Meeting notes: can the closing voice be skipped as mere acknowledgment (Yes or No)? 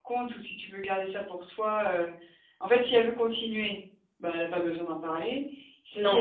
Yes